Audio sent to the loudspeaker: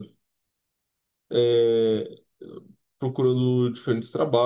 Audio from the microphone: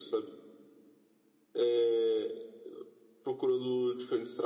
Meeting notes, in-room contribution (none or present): none